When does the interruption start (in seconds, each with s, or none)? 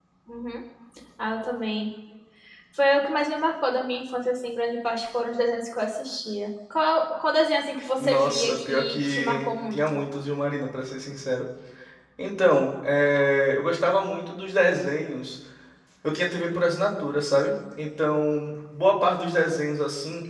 8.0 s